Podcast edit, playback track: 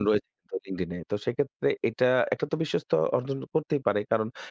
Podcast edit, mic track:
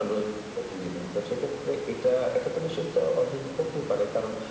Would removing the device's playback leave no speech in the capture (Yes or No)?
Yes